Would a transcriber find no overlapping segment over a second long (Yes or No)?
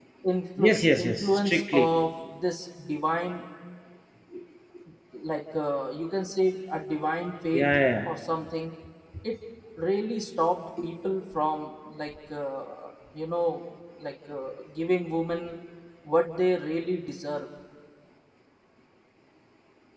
No